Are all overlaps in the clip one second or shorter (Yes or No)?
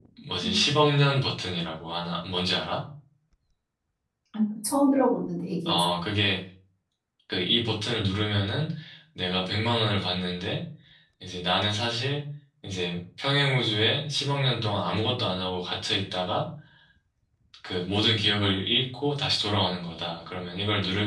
Yes